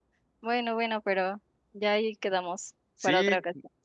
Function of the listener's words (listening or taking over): taking over